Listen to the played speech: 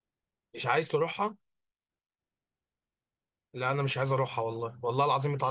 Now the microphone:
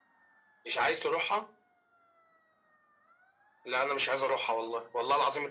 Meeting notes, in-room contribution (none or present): none